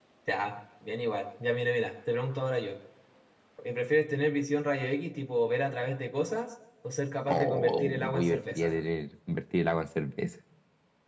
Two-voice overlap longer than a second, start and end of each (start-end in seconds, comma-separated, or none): 7.3-8.7